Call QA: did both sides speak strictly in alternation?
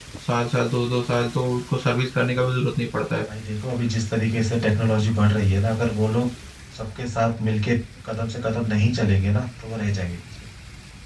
Yes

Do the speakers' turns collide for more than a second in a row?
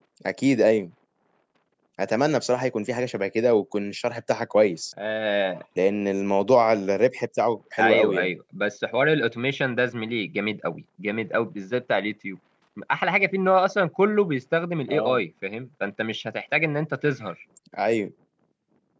No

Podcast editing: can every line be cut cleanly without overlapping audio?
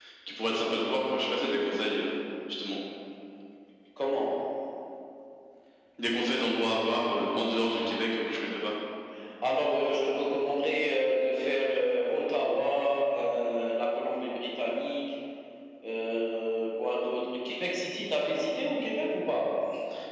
Yes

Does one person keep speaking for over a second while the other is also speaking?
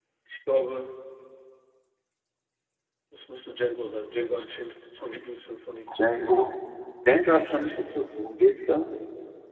No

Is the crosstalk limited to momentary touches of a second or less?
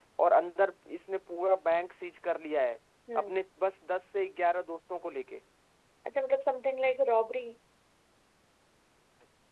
Yes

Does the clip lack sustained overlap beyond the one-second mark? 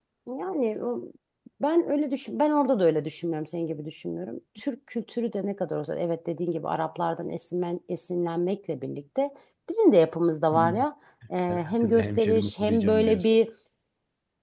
No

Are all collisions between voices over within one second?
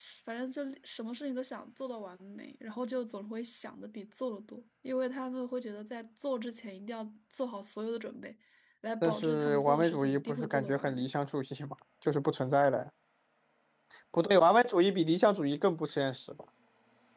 No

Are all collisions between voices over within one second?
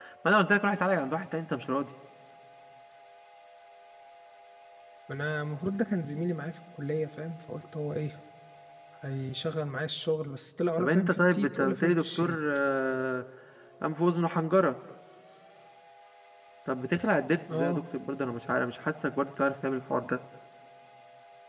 No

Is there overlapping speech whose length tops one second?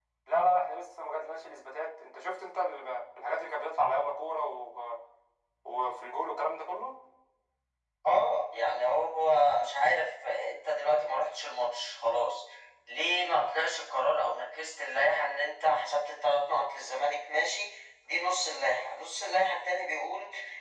No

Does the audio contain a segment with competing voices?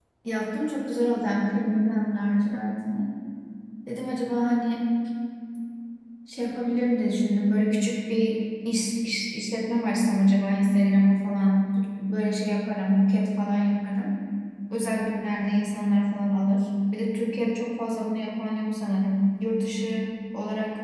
No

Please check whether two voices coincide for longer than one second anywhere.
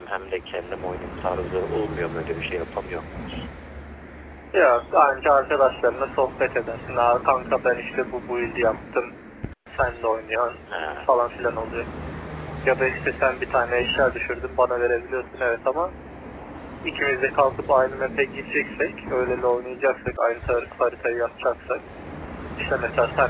No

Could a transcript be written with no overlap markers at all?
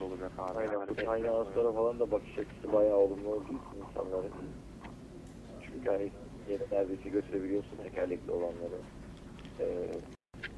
No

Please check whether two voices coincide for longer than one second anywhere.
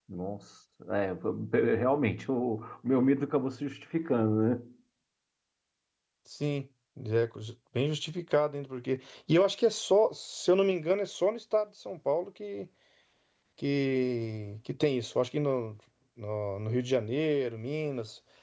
No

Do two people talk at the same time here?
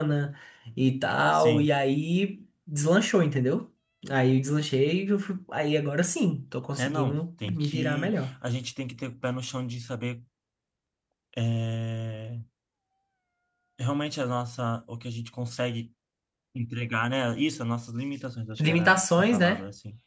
Yes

